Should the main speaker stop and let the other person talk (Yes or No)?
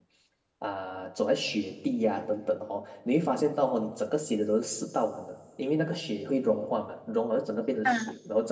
No